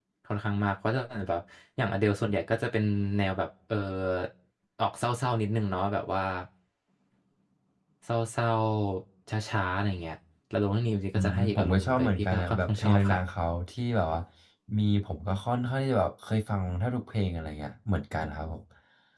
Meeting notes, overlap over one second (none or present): present